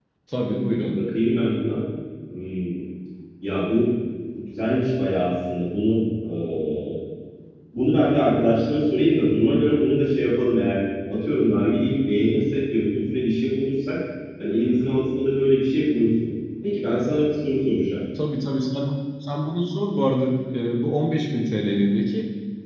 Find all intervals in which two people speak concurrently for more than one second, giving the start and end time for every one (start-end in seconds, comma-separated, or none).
none